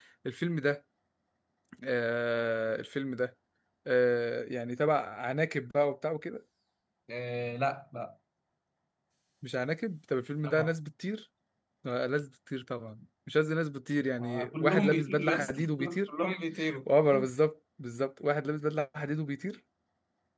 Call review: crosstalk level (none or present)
present